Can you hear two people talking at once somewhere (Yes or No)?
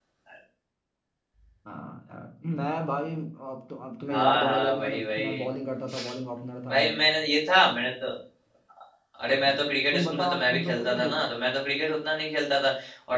Yes